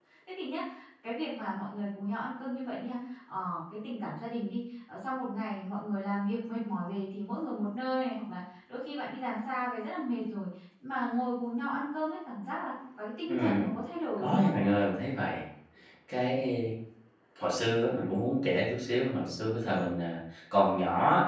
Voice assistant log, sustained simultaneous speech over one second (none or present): none